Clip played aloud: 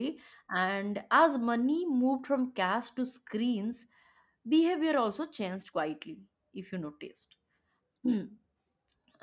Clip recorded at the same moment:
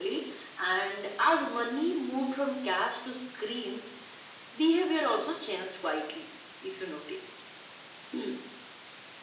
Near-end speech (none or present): none